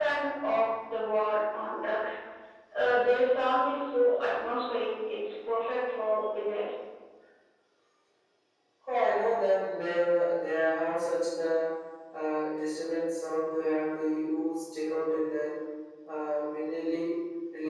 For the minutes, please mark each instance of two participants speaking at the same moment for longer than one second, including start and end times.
none

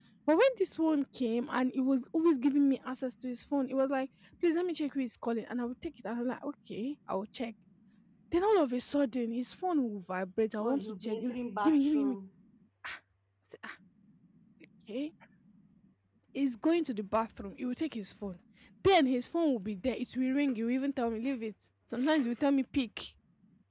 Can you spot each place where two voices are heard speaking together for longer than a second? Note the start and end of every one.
10.6-12.2

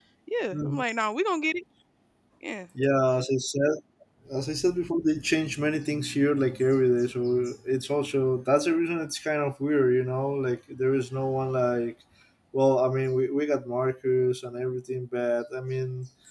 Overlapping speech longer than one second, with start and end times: none

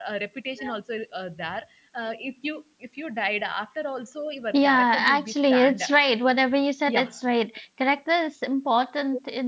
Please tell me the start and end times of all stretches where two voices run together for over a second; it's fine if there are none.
4.5-5.8

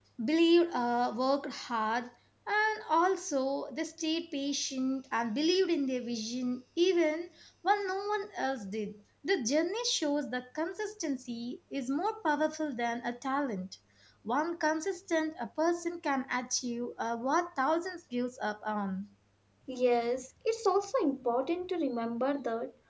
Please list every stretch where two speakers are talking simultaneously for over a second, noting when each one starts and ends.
none

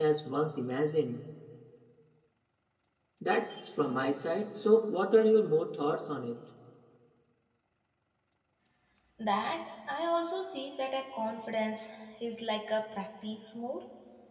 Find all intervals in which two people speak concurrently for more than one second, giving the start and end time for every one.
none

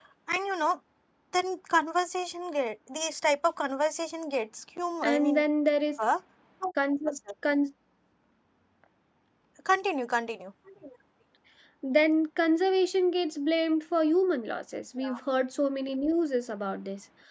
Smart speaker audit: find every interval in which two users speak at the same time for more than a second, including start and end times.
none

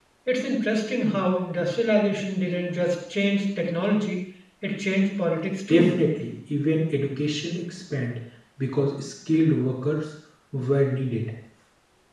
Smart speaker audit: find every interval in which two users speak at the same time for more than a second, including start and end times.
none

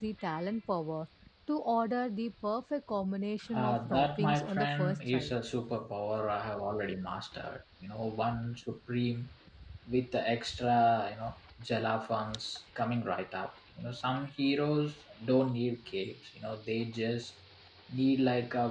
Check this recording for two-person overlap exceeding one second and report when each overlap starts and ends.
3.5-5.4

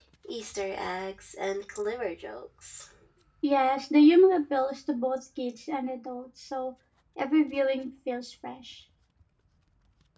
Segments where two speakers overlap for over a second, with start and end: none

